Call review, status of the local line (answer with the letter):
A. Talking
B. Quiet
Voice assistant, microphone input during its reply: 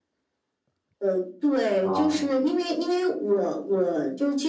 A